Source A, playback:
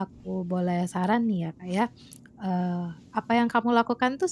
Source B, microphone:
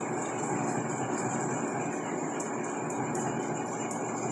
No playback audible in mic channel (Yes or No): Yes